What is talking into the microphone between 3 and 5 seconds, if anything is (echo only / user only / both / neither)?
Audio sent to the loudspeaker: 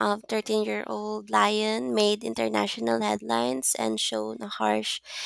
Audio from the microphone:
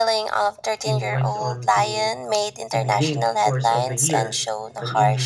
both